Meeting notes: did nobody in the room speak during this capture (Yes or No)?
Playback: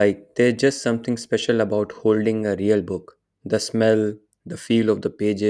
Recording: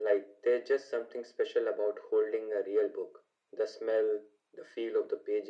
Yes